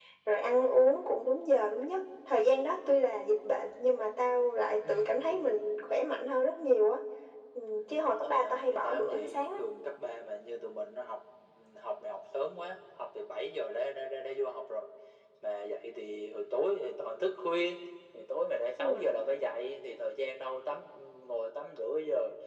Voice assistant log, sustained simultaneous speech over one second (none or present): present